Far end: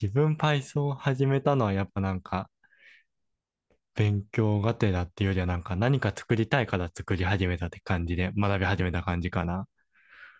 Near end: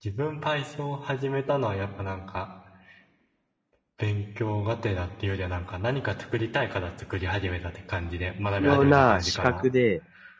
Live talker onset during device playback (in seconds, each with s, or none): 8.5 s